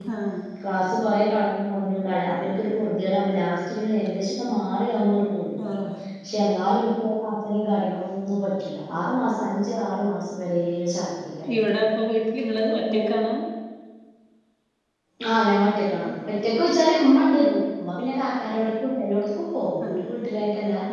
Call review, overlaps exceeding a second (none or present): none